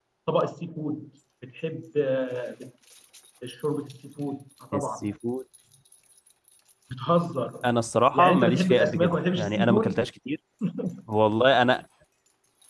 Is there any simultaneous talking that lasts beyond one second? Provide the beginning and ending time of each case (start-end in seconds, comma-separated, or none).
8.1-10.0